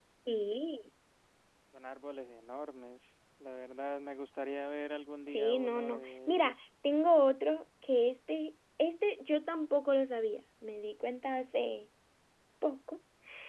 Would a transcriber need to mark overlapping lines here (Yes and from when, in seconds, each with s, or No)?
Yes, from 5.3 s